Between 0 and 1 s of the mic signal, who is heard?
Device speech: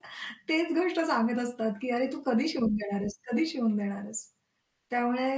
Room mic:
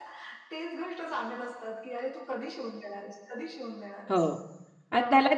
echo only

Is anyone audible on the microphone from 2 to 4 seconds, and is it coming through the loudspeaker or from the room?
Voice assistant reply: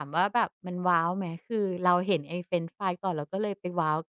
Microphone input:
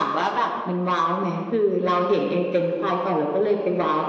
echo only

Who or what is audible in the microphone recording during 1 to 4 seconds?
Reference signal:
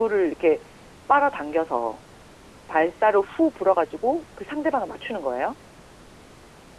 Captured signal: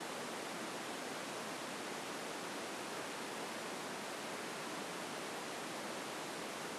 neither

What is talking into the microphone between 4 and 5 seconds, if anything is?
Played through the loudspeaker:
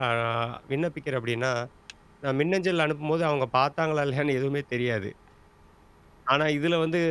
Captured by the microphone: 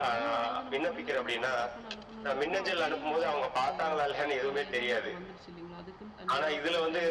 both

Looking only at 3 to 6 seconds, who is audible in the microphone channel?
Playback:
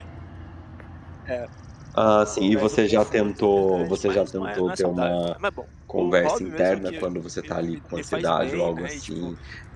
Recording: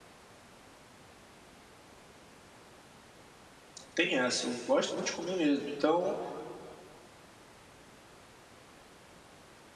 user only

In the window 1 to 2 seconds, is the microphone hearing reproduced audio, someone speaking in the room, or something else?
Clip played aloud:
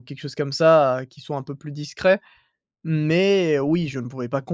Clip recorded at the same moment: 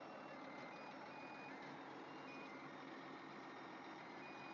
neither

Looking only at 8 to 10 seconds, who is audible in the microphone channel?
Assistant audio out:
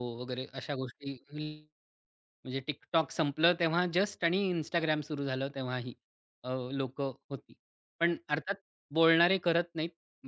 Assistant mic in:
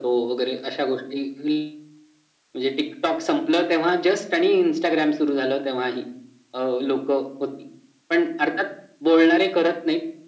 echo only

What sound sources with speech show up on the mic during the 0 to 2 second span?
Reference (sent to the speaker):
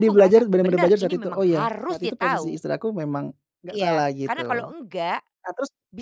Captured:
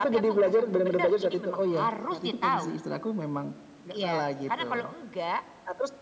echo only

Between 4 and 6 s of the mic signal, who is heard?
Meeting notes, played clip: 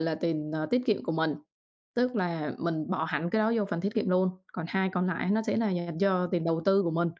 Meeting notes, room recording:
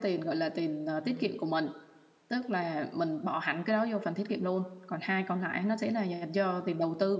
echo only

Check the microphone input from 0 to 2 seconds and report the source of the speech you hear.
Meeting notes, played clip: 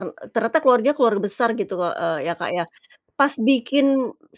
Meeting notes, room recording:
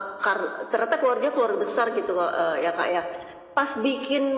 echo only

